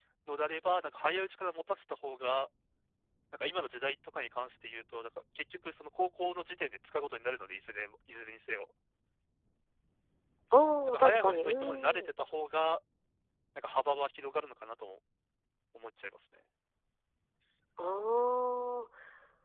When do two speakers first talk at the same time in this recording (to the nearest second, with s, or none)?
11 s